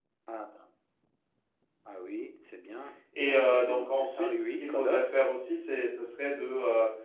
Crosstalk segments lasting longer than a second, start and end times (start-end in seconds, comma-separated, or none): 3.2-5.1